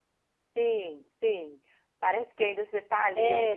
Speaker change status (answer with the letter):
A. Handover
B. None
A